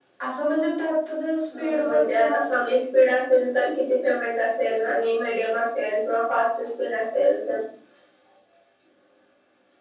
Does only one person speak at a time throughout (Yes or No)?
No